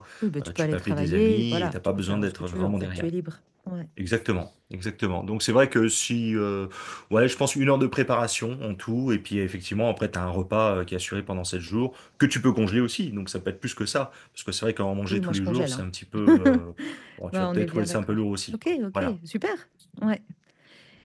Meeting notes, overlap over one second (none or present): present